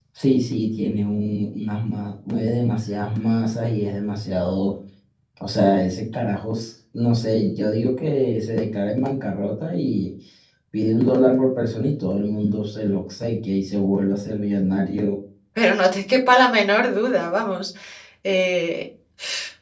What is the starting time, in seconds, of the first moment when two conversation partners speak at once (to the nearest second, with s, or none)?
none